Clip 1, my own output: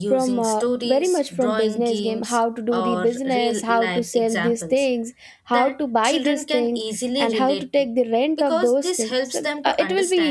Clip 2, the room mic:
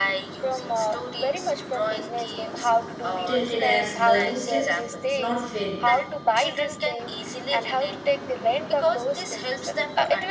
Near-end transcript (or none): treated as learning steps, not failures.